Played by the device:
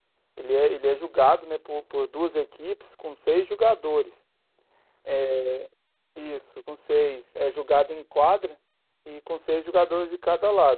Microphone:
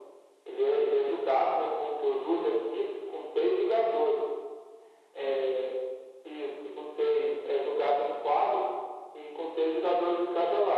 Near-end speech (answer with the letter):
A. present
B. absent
B